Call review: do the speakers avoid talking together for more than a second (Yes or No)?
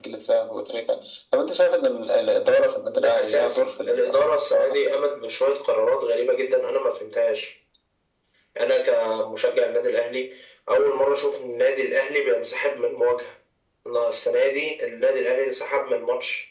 No